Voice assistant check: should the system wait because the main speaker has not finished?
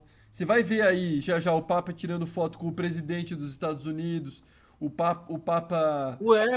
No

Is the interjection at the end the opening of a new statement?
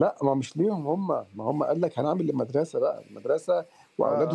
No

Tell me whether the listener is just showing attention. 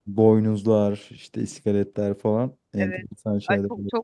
No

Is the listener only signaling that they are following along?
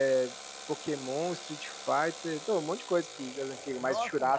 No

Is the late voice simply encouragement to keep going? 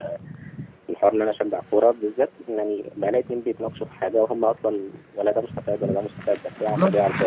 Yes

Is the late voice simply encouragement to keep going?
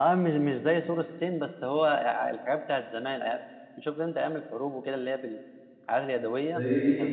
No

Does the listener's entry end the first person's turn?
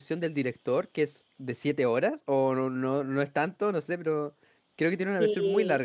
Yes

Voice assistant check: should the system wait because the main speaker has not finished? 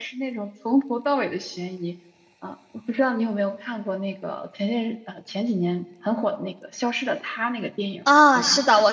No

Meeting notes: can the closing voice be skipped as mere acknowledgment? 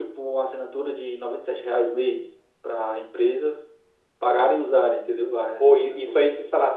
No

